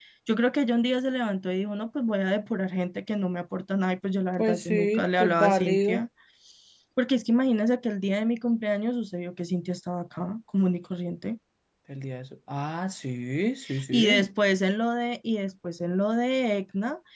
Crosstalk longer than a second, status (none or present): present